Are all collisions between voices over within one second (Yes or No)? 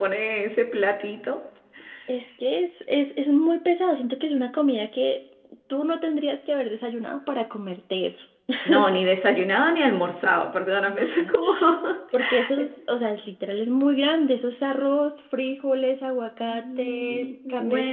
No